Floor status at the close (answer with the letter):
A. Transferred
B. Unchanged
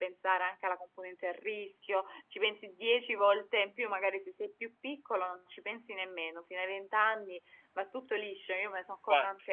B